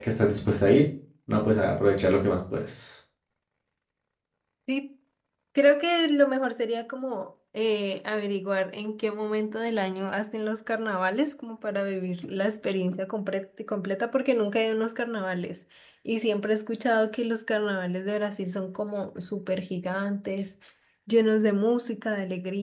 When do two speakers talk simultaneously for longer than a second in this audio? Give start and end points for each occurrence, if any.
none

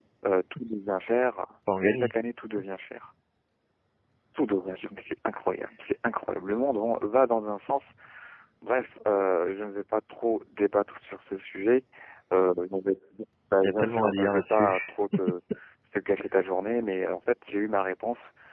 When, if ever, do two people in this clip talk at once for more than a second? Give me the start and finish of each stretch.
13.6-14.9

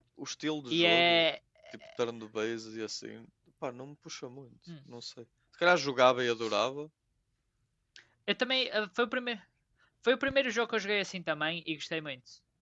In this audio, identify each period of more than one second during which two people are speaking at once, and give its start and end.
none

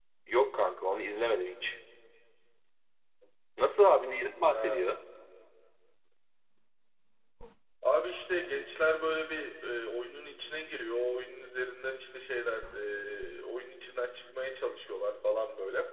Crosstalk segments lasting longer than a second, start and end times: none

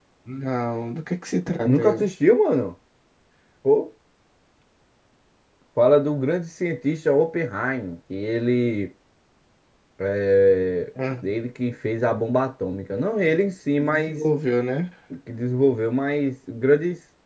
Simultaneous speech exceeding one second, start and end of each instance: none

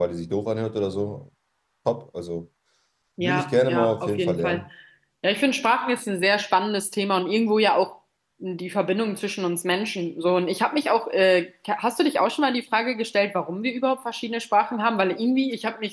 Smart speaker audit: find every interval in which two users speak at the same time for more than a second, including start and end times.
3.2-4.6

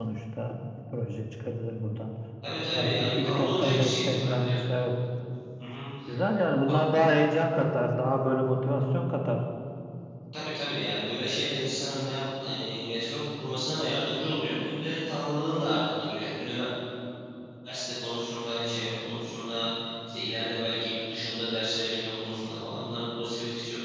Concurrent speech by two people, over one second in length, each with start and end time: 2.7-4.6

